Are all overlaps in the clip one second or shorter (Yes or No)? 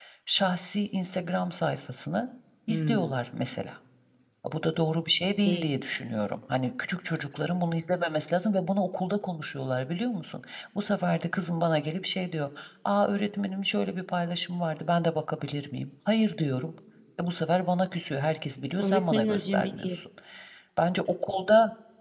No